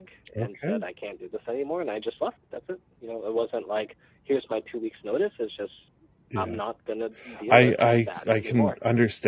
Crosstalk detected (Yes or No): Yes